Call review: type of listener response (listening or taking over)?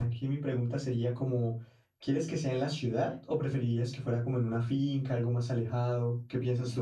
taking over